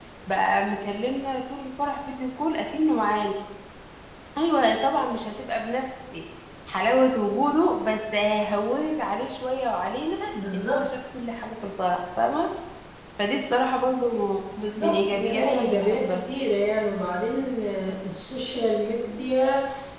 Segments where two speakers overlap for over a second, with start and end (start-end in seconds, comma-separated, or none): 14.8-16.2